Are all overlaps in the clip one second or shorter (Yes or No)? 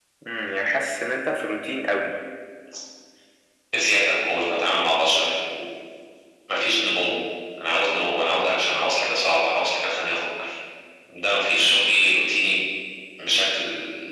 Yes